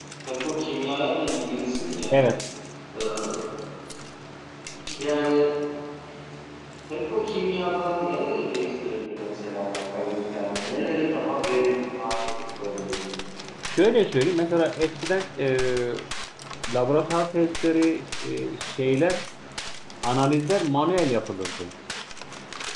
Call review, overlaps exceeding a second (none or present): none